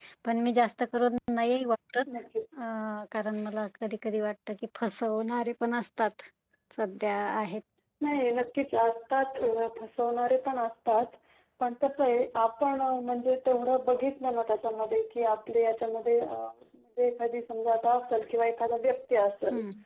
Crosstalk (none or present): none